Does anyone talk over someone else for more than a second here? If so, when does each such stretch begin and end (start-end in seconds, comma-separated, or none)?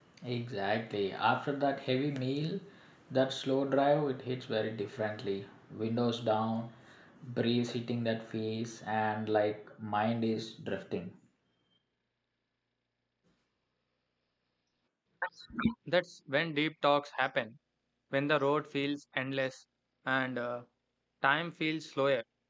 none